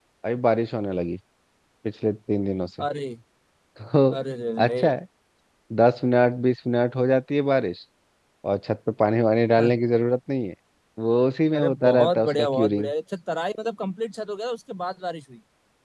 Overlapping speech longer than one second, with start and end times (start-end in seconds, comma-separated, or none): 11.6-12.9